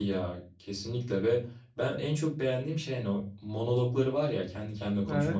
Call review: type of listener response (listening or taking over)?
listening